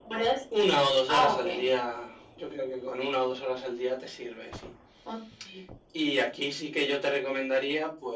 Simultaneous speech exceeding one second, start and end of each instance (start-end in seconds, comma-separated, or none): none